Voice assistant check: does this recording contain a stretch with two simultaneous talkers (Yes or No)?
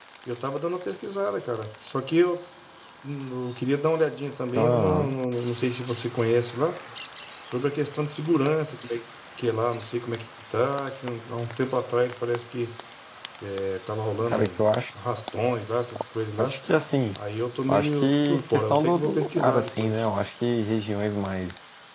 Yes